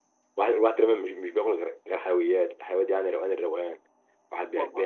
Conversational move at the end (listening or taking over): listening